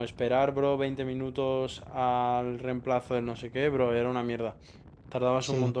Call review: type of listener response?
listening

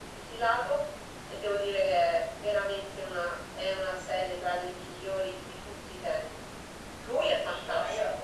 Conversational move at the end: taking over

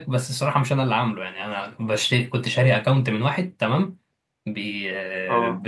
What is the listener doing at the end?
listening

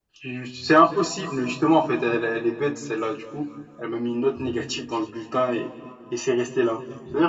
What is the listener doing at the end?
listening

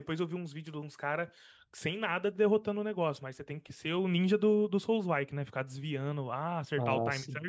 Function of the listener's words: listening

